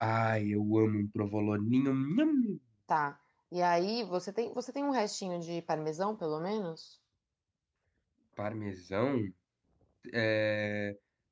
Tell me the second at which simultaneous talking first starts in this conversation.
none

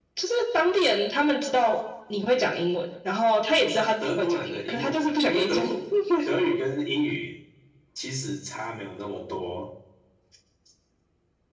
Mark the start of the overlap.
3.6 s

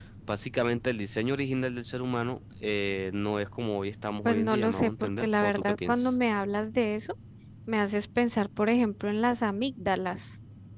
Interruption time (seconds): 4.2 s

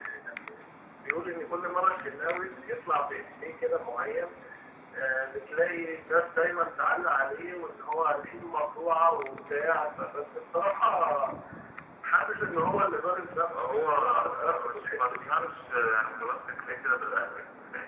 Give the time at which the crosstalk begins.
13.5 s

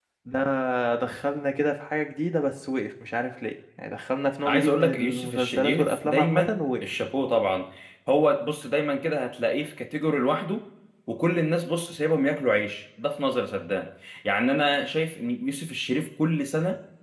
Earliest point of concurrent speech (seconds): 4.5 s

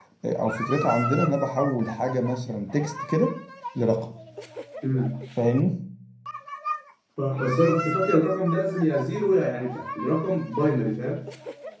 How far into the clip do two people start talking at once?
none

